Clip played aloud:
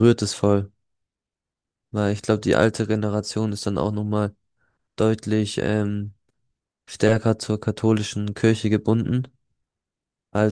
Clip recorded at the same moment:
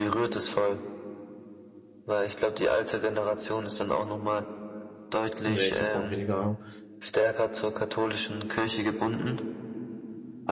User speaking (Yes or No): Yes